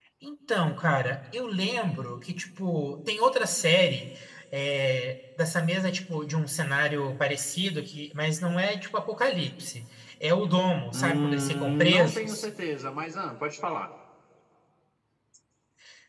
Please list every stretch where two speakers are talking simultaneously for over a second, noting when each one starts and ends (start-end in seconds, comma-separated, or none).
10.9-12.5